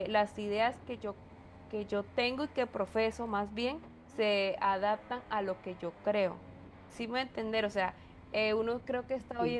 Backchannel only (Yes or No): Yes